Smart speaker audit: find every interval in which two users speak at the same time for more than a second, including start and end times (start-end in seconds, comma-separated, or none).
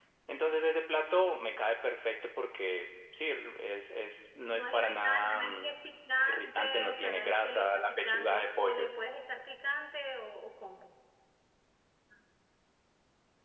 4.5-5.7, 6.2-8.9